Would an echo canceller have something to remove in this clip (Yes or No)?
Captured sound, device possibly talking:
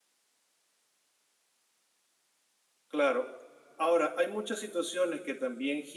No